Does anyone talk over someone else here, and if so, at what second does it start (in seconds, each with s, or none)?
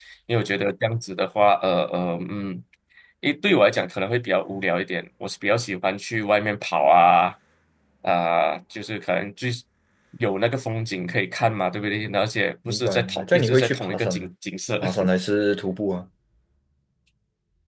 12.6 s